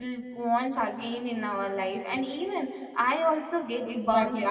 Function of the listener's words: taking over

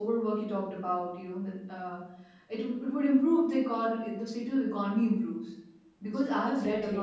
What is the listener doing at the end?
listening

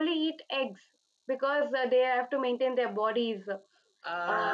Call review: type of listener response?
taking over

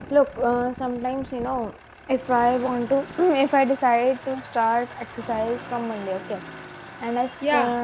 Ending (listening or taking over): listening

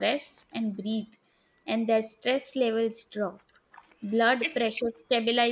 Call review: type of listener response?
listening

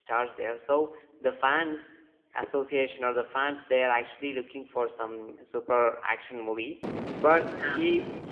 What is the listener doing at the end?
listening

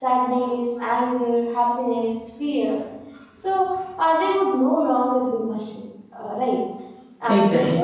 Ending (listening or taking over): listening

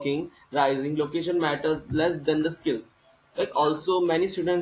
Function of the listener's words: listening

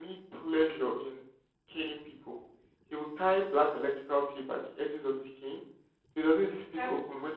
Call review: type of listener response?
listening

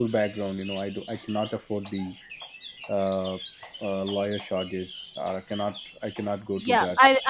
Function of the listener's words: taking over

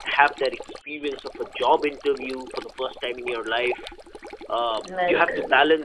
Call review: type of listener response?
listening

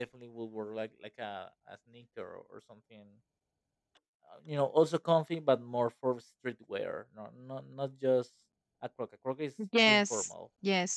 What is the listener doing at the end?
taking over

